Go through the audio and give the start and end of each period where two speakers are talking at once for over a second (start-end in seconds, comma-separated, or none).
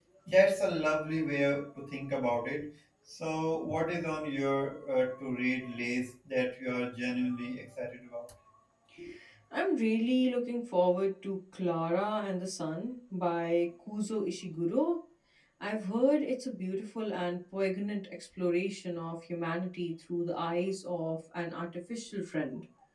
none